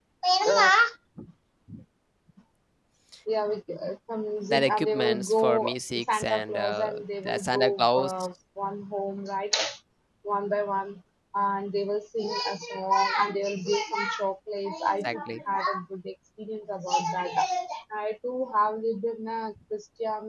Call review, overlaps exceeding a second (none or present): present